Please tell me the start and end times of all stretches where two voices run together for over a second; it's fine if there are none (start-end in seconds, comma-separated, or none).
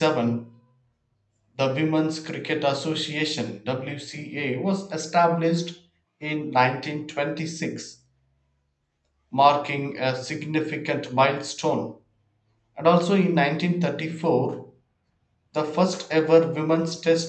none